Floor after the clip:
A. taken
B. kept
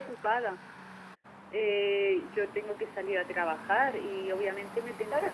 A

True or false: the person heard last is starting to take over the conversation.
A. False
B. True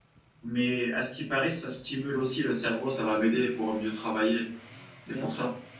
B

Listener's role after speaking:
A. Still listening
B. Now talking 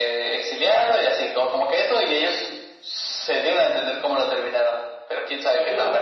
B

